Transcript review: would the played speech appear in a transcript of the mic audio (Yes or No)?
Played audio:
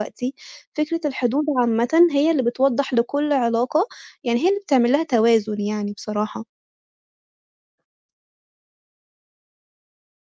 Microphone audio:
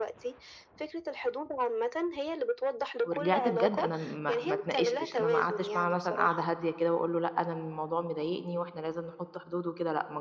Yes